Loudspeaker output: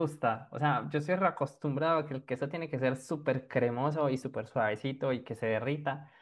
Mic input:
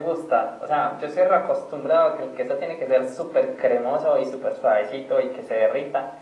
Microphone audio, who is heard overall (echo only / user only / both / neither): echo only